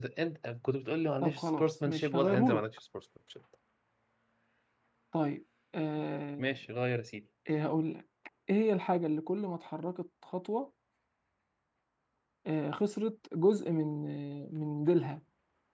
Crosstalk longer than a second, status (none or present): present